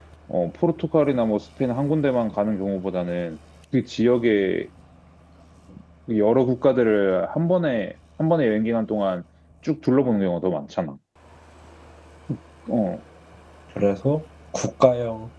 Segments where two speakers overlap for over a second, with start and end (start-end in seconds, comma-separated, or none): none